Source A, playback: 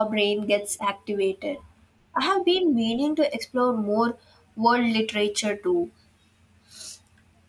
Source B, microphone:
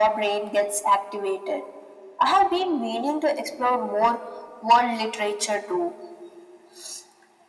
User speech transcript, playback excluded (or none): none